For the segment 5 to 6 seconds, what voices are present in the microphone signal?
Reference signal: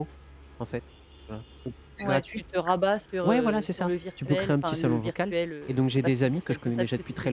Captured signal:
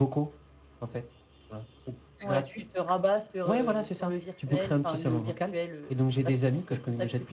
echo only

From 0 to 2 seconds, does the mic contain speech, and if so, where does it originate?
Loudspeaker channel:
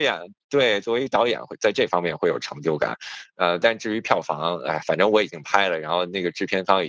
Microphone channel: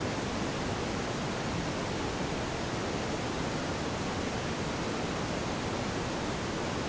neither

